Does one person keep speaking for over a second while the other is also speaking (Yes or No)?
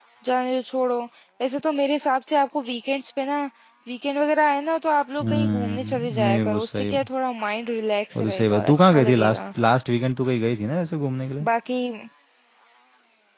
Yes